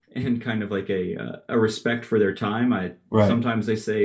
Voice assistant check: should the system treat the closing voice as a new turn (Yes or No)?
No